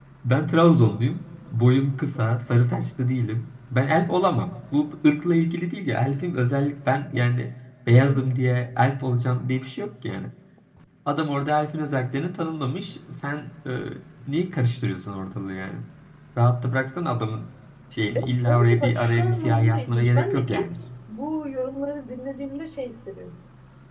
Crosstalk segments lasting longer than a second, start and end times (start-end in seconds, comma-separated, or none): 18.5-20.7